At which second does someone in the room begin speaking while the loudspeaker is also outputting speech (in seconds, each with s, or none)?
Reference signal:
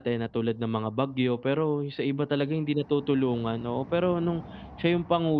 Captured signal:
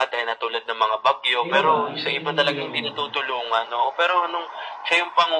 1.4 s